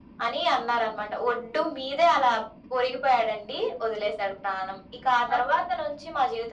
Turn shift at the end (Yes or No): No